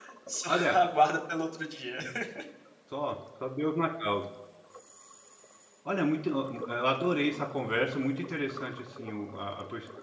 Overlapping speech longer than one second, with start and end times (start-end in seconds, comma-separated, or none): none